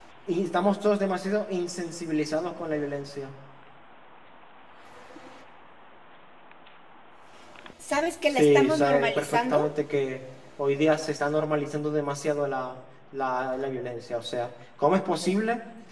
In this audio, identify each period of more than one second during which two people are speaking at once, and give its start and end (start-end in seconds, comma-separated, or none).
8.3-9.7